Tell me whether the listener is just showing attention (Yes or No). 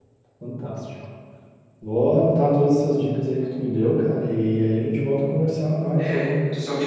No